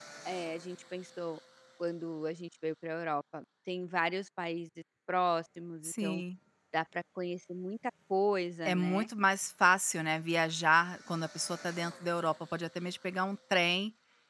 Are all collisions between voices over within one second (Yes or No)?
Yes